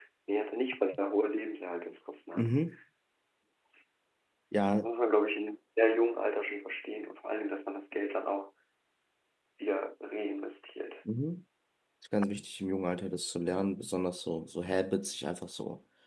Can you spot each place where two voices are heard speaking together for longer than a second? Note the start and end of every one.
none

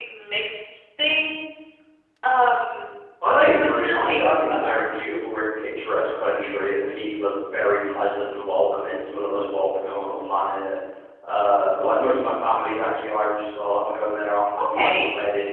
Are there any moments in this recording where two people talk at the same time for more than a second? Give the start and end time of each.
3.3-5.0

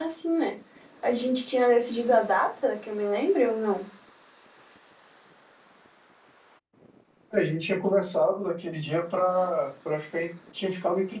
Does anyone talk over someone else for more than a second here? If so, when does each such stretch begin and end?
none

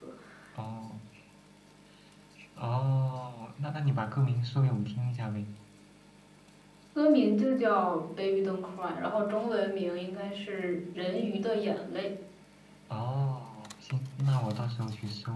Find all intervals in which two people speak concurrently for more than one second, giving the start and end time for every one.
none

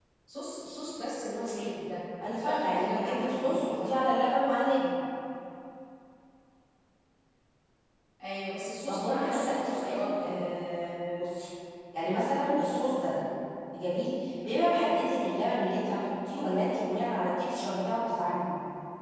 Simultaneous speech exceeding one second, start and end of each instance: 2.3-4.0, 8.9-10.3

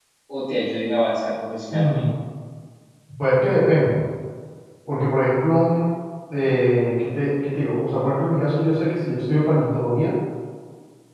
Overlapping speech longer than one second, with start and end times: none

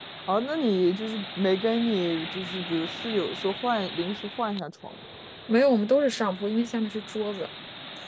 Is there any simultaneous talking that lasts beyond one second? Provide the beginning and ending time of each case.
none

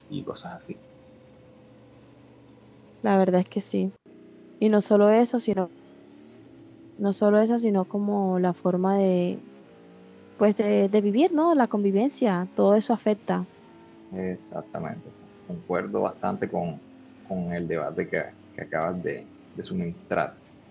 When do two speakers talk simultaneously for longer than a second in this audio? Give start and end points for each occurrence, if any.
none

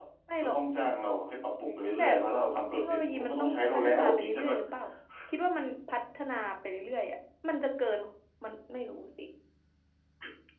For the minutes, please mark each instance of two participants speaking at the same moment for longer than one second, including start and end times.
2.7-4.6

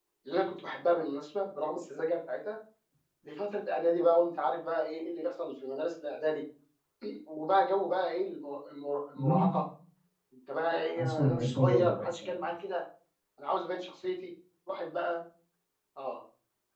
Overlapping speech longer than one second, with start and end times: 11.0-12.4

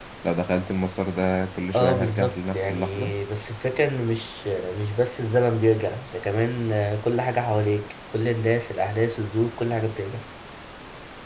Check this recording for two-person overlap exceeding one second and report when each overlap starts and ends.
1.7-3.2

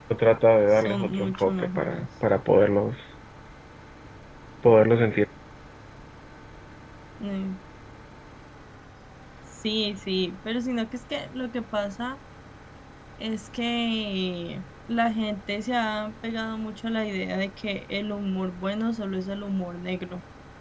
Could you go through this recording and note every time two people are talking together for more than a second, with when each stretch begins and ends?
0.8-2.1

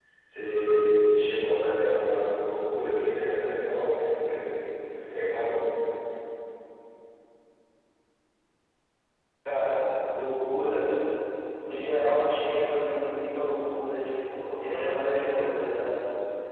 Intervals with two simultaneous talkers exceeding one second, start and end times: none

